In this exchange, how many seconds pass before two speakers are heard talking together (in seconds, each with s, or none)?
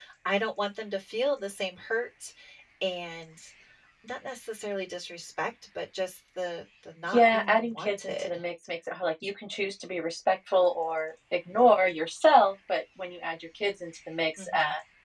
7.1 s